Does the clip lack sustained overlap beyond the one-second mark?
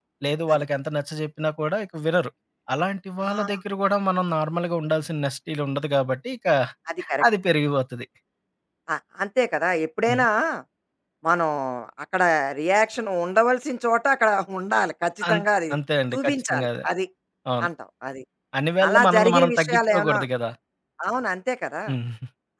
No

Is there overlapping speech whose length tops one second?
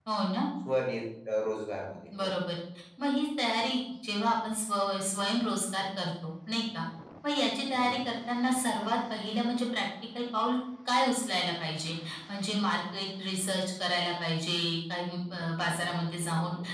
No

